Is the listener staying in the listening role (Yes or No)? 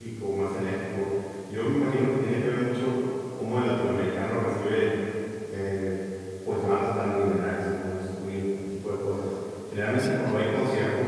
Yes